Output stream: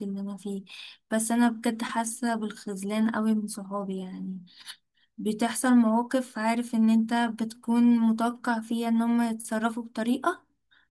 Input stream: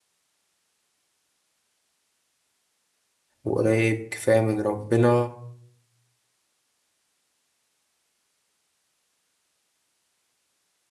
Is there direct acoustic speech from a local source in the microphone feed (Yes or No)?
Yes